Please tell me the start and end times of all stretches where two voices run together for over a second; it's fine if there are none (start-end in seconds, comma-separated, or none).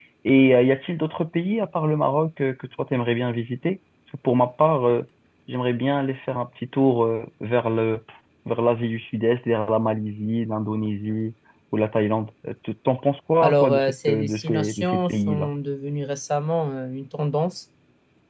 13.4-15.5